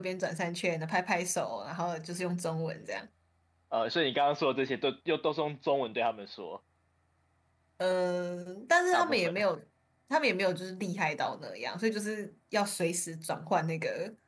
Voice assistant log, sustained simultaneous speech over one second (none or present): none